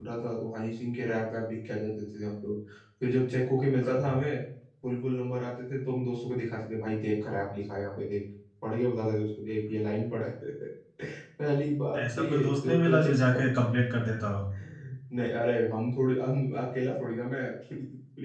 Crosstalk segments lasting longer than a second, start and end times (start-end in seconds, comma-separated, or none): 12.2-13.4